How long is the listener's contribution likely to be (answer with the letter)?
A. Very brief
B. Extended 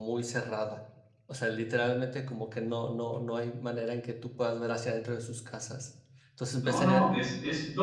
B